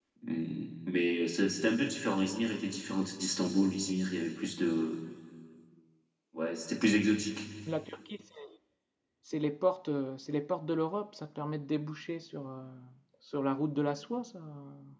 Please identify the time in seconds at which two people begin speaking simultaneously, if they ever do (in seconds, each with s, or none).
none